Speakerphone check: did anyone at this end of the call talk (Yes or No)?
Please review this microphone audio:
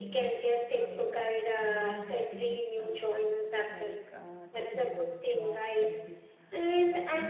Yes